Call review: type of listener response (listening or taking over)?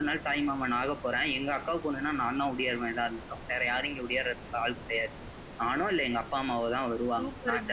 taking over